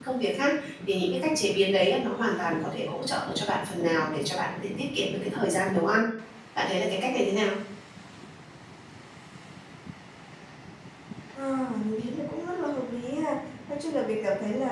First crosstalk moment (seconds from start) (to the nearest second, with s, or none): none